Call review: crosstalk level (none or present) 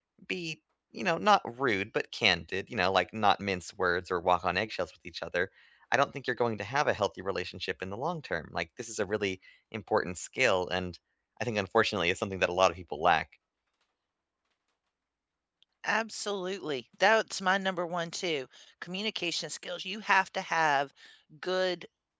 none